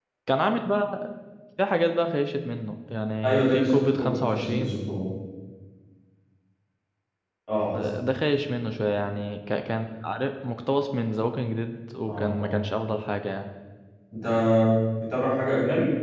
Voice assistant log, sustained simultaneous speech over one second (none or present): present